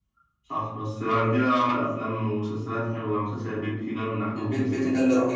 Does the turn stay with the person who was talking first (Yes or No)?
No